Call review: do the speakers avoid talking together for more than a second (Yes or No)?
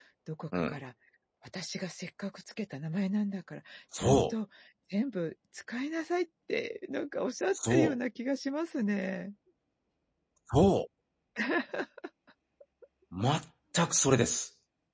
Yes